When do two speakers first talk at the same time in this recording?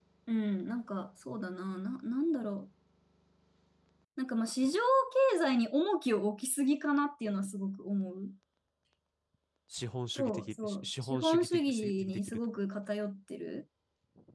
10.2 s

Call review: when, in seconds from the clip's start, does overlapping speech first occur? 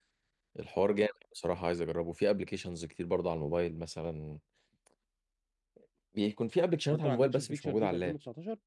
6.9 s

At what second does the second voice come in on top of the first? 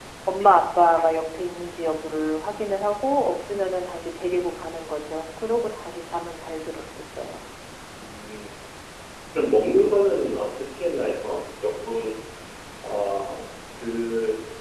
none

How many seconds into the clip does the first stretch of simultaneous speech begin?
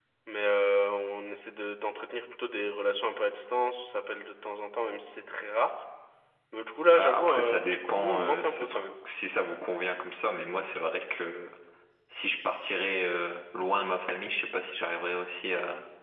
7.0 s

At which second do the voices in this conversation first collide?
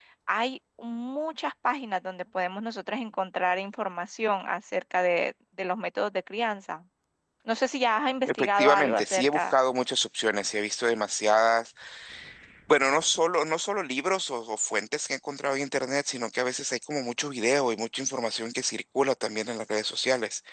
8.3 s

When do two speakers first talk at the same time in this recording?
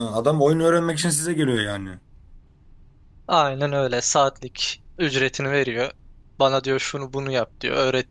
none

